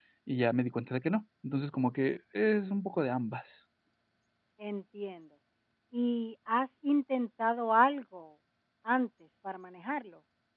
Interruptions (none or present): none